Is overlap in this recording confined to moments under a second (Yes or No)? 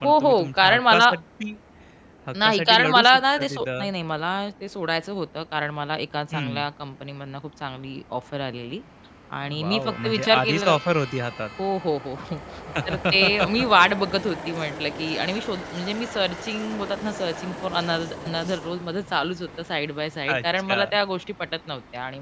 No